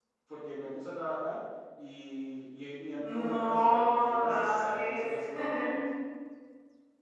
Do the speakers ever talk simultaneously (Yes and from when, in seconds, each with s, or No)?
Yes, from 3.0 s